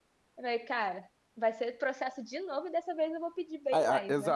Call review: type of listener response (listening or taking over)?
taking over